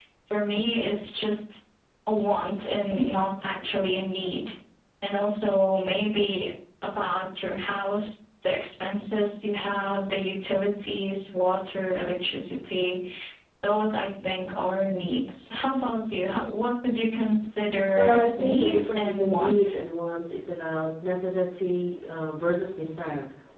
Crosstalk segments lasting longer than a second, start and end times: 18.0-19.8

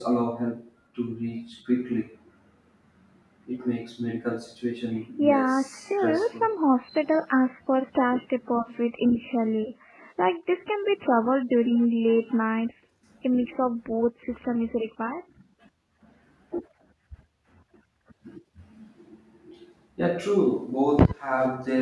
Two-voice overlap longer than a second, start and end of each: 5.2-6.5

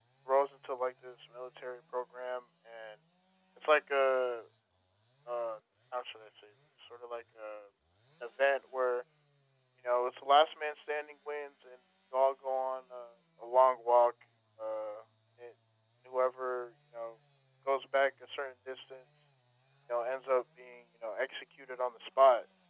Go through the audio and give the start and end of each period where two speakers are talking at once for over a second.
none

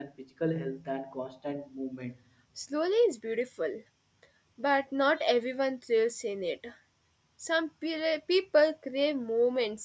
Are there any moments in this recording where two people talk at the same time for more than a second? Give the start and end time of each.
none

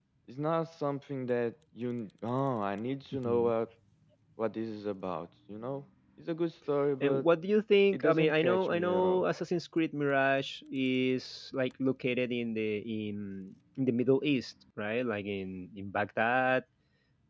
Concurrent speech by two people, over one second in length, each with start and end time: 7.9-9.2

